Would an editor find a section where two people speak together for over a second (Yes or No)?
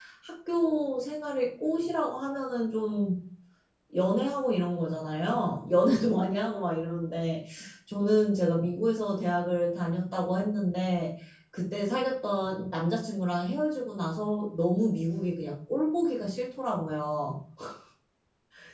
No